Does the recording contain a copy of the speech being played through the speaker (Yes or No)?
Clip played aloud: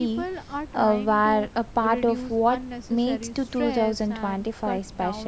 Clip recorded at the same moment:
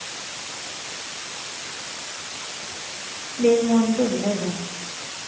No